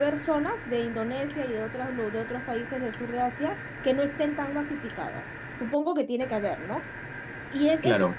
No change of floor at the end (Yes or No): Yes